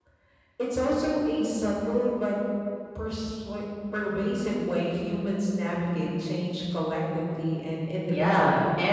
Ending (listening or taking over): taking over